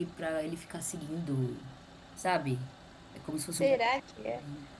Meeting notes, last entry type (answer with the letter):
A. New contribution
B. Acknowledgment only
A